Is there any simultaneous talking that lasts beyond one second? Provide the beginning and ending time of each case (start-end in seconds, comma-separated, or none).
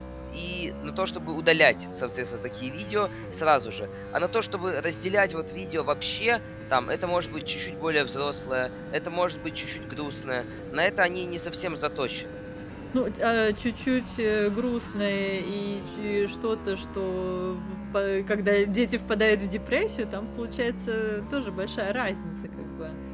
none